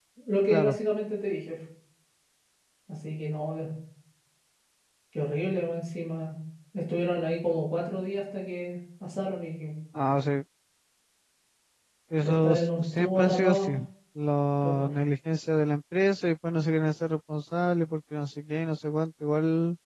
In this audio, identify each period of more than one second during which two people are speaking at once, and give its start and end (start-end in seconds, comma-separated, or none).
12.2-13.7